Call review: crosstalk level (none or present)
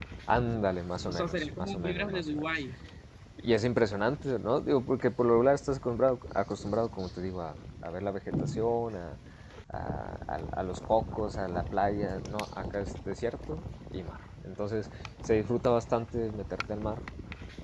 present